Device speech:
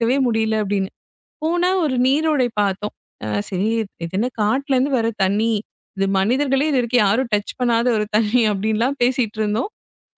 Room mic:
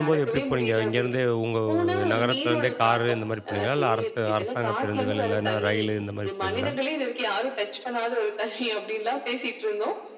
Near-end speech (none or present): present